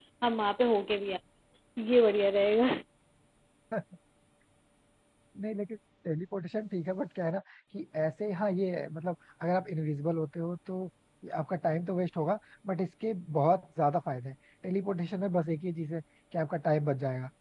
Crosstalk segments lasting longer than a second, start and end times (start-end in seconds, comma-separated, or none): none